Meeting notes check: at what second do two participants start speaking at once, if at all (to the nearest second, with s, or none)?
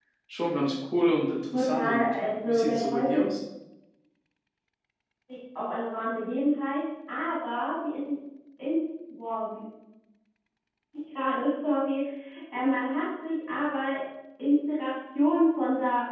2 s